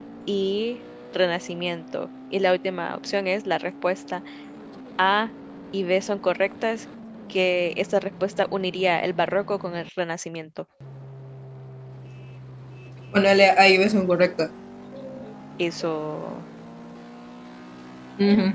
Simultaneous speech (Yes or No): No